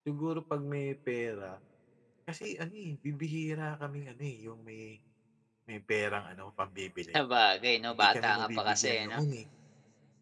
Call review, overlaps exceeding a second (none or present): present